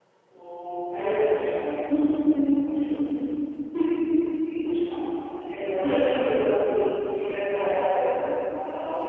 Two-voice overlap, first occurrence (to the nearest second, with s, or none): none